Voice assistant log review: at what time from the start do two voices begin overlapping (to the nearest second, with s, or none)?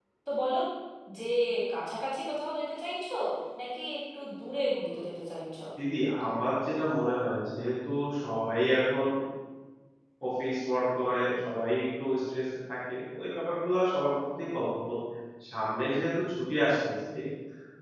none